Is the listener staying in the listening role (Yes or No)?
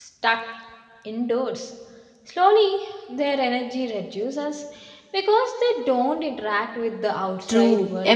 No